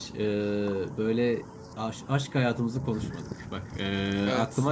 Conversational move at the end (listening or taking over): listening